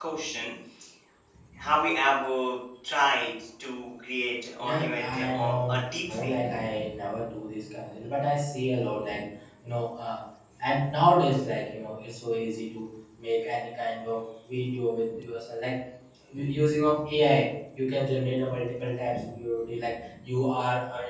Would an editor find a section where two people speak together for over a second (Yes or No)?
Yes